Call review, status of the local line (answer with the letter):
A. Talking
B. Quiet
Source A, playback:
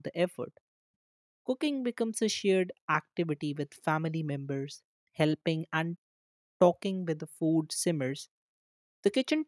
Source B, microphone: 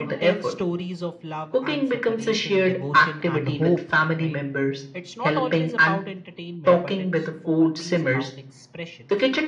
A